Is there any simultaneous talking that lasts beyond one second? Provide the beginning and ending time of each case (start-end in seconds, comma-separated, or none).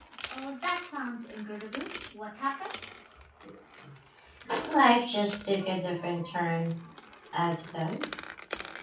none